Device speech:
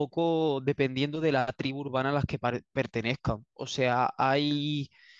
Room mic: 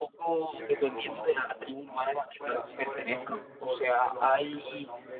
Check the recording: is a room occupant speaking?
Yes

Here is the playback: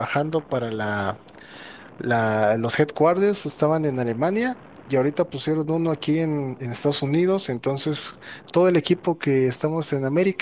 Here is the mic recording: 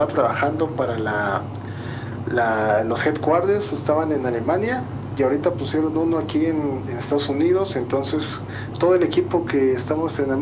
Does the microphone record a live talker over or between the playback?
No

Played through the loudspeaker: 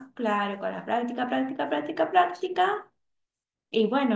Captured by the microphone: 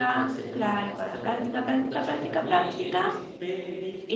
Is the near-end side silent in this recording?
No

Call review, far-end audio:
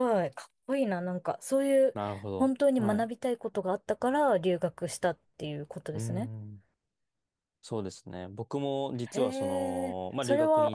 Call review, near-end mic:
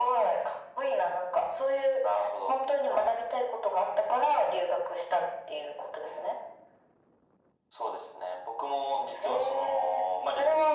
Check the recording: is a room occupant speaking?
No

